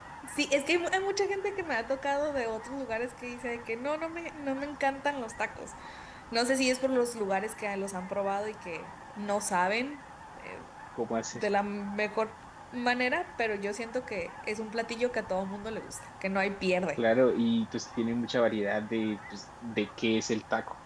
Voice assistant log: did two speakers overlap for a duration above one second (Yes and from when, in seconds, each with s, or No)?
No